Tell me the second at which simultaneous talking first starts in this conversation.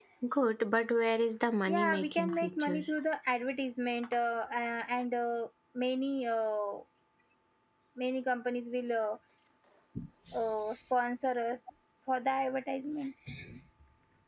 1.7 s

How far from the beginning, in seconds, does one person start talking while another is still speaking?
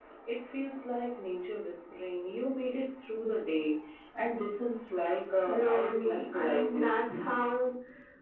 5.4 s

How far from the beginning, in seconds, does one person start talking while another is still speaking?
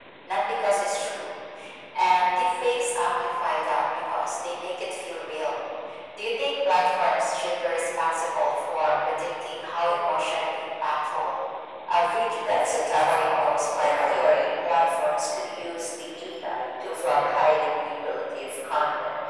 12.4 s

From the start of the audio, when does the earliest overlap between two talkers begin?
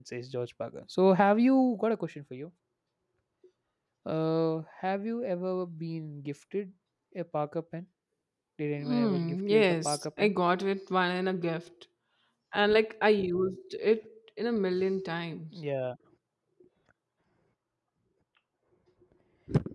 8.8 s

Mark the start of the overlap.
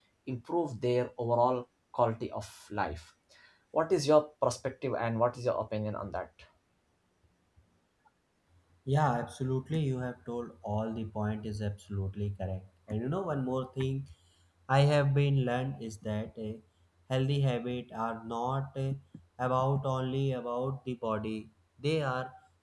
none

